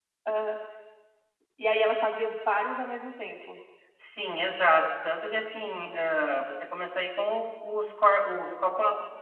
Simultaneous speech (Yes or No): No